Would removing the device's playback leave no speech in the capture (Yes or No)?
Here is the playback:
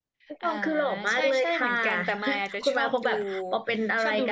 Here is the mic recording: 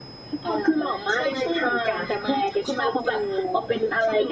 Yes